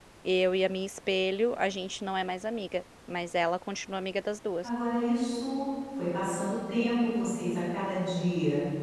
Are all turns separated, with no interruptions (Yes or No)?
Yes